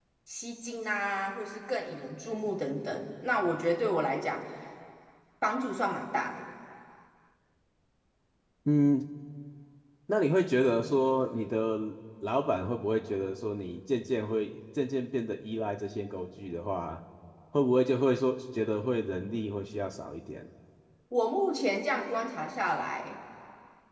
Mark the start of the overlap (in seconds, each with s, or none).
none